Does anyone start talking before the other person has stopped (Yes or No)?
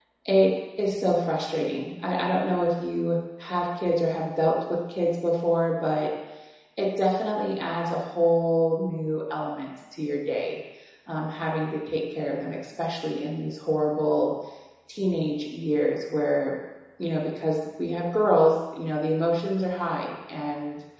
No